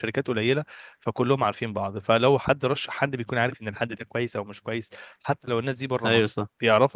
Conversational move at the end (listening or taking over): listening